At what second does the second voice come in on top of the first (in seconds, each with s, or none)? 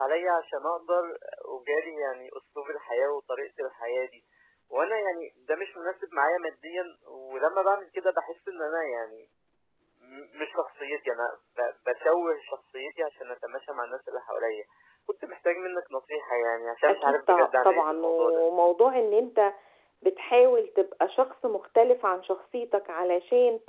16.9 s